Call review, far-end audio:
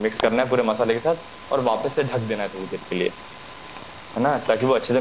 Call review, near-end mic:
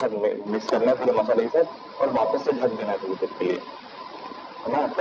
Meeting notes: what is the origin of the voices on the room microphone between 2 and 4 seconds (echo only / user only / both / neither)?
echo only